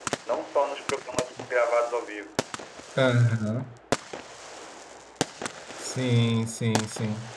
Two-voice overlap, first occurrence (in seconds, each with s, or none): none